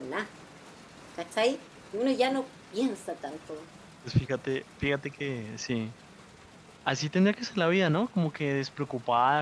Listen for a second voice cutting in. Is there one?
No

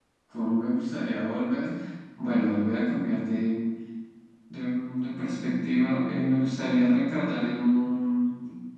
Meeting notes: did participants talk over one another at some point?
No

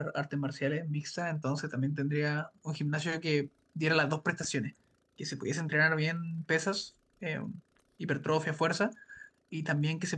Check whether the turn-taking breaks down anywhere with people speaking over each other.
No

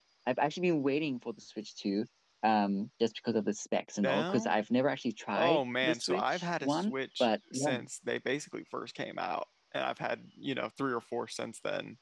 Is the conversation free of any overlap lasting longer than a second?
No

